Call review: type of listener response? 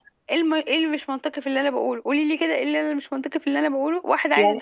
listening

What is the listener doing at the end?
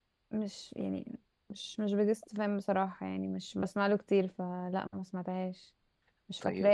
listening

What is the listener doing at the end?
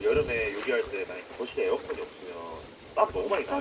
taking over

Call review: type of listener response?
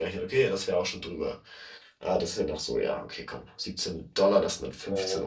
listening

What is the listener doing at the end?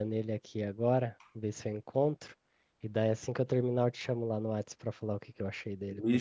taking over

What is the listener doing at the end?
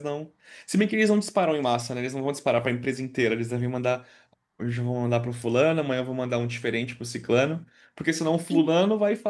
listening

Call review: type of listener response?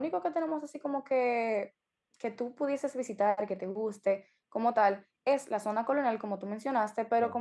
listening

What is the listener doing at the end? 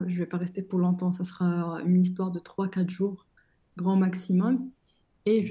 listening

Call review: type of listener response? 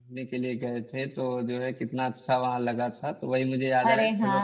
listening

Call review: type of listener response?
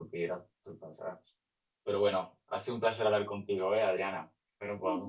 taking over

